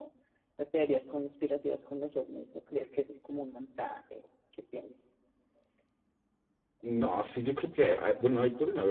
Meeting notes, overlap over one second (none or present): none